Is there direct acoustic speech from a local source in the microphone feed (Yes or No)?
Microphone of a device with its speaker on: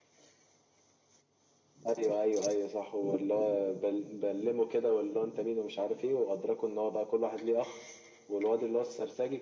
No